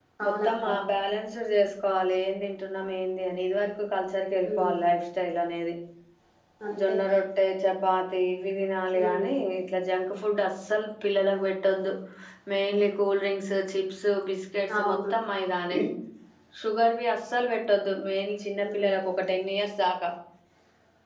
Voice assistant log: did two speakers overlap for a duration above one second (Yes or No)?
No